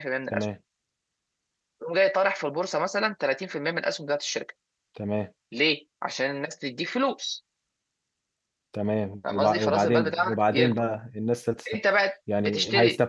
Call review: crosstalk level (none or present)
present